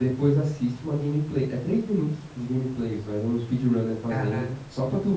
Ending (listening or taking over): listening